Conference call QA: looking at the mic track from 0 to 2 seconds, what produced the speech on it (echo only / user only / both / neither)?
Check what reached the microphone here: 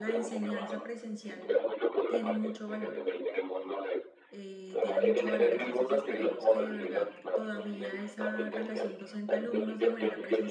both